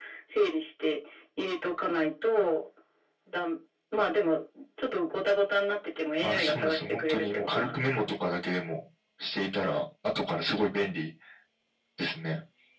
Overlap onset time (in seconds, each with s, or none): 6.2 s